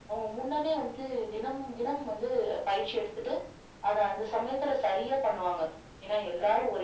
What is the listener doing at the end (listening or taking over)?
listening